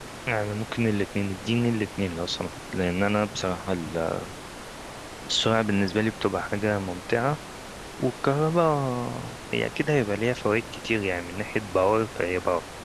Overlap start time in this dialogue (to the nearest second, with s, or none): none